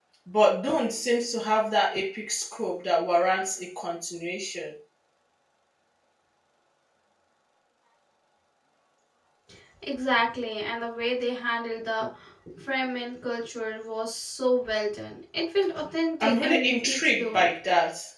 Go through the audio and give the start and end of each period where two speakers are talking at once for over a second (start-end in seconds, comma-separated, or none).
16.2-17.5